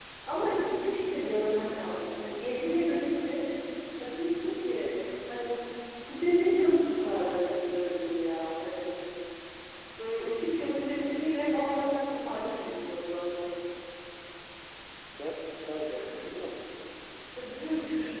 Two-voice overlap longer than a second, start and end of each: none

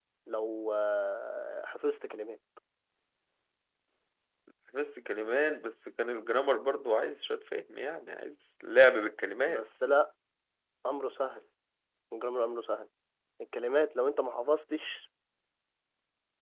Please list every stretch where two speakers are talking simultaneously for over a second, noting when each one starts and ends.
none

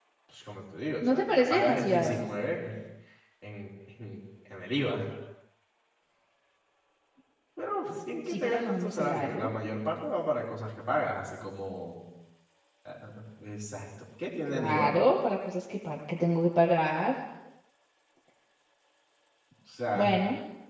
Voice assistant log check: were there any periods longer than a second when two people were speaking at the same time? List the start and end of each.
1.0-2.2, 8.3-9.5

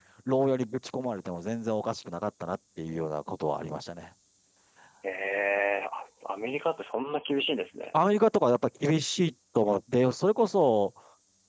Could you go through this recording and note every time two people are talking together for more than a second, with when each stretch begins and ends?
none

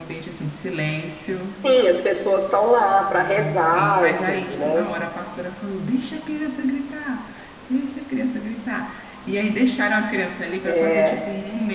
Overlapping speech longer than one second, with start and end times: 3.1-4.9

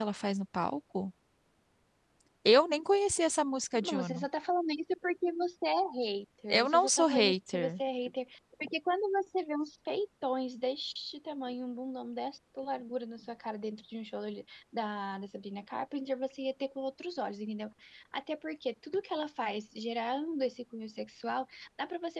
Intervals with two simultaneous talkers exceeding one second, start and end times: 6.5-7.8

